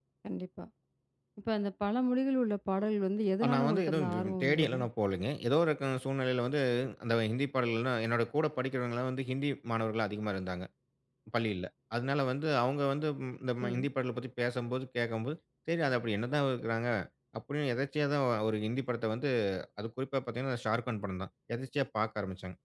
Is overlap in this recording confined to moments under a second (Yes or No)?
No